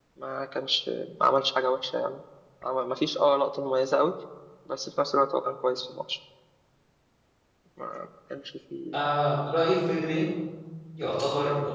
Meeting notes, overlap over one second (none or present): none